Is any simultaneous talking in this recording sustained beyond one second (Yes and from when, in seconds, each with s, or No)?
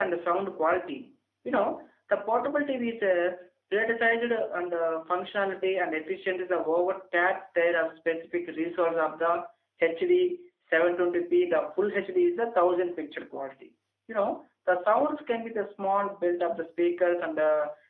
No